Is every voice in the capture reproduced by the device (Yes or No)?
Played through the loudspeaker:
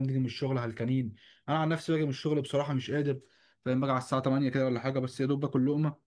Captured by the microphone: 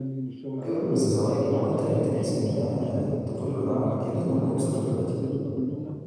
No